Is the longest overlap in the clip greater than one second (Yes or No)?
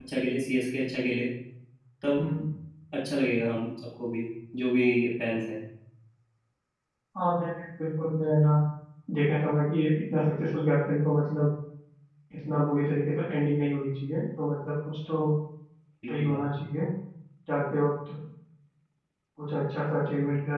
No